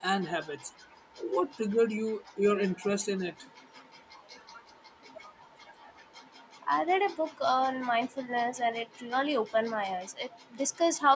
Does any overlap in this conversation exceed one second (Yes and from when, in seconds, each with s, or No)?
No